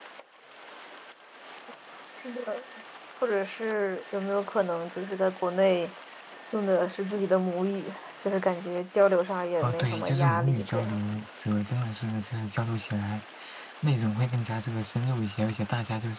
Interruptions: present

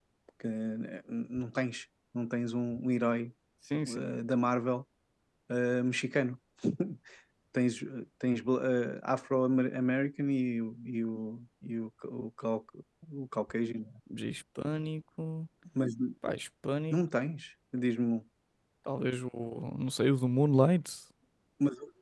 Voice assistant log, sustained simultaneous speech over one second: none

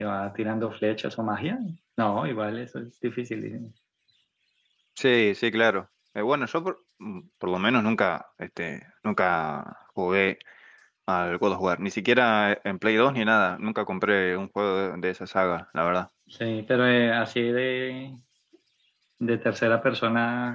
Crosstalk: none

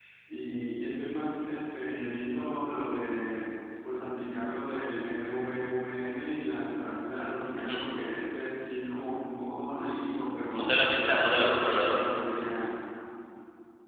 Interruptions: present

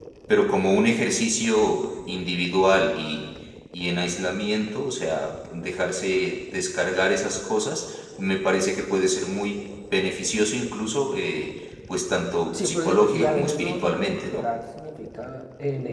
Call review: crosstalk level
present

